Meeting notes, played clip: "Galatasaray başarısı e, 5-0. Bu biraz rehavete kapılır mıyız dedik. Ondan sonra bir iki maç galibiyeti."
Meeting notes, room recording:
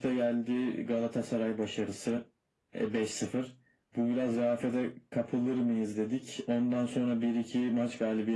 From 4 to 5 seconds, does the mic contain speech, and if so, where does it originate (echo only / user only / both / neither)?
echo only